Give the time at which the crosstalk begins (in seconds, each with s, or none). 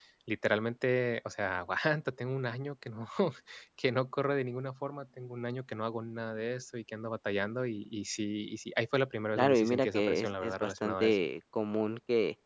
9.4 s